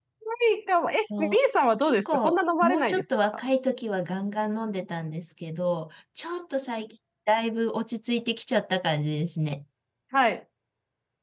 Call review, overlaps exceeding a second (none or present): present